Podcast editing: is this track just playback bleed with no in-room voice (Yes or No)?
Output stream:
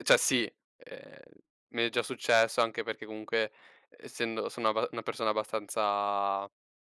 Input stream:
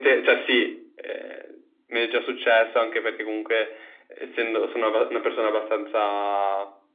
Yes